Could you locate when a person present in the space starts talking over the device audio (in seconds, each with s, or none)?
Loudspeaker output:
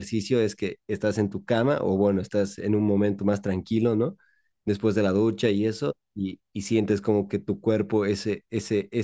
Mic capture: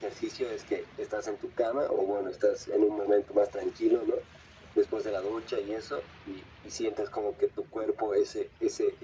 none